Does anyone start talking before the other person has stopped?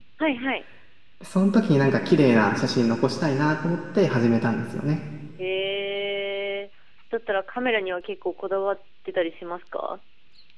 No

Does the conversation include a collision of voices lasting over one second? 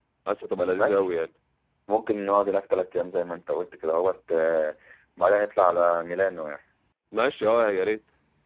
No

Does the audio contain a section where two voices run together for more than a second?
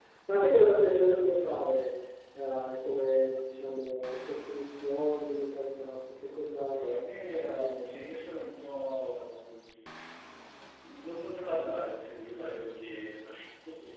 No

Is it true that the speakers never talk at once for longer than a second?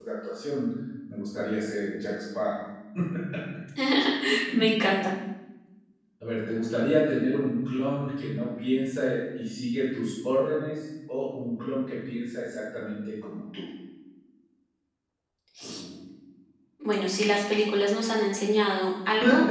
Yes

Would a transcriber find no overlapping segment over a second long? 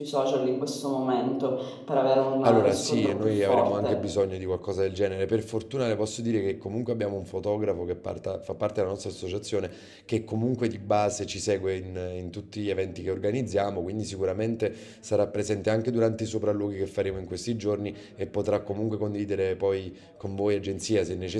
No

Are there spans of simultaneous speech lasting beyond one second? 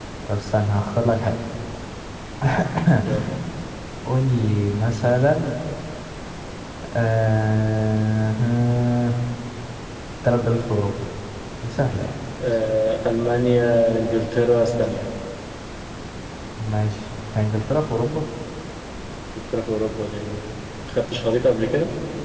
No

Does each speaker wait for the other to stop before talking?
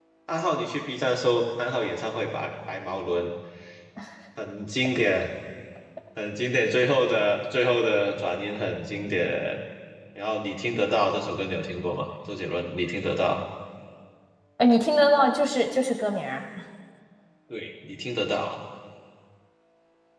Yes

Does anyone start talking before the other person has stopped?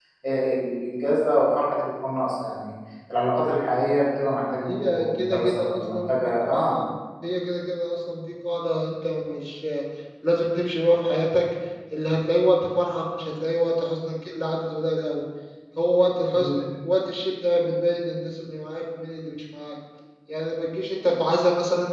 Yes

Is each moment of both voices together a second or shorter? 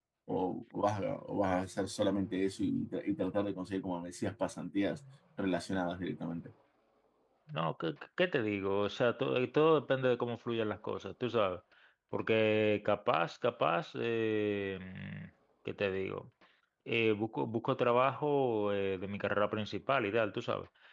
Yes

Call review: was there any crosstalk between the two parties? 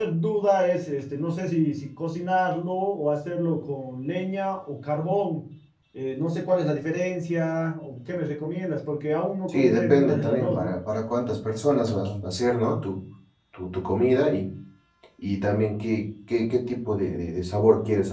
Yes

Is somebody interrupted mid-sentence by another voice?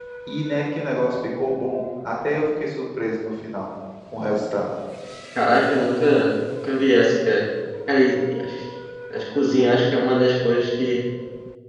No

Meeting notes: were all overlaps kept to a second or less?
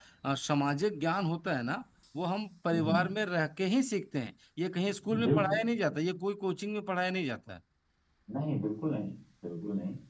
Yes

